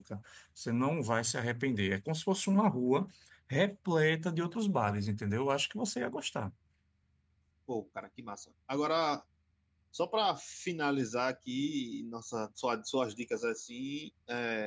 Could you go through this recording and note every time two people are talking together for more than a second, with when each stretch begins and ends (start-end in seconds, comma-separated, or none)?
none